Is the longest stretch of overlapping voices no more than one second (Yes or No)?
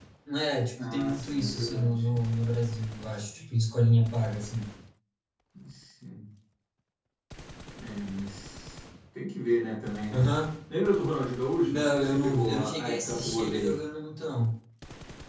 No